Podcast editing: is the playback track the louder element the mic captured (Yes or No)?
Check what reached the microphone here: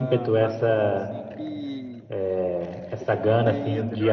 Yes